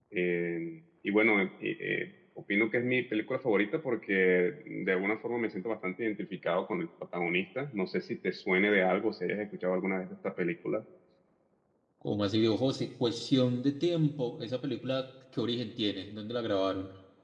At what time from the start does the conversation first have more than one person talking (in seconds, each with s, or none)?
none